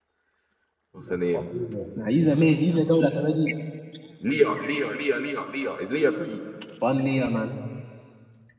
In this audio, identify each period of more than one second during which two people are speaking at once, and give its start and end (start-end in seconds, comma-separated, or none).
none